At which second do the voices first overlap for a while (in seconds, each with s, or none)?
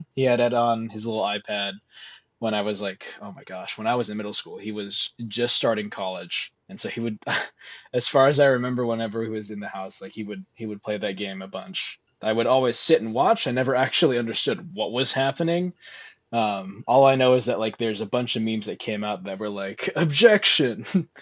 none